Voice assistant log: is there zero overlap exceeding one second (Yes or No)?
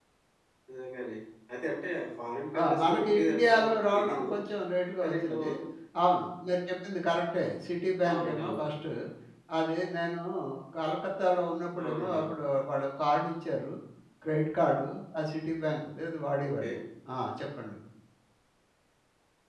No